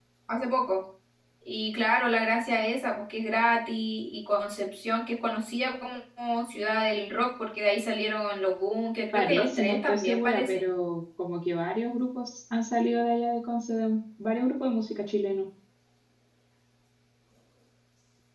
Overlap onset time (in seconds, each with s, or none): 9.1 s